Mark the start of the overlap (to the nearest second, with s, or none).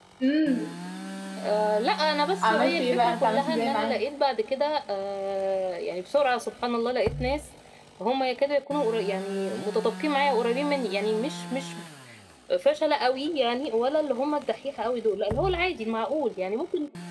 2 s